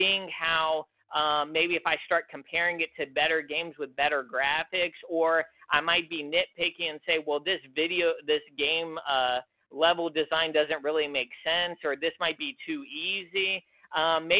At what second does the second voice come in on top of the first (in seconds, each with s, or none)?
none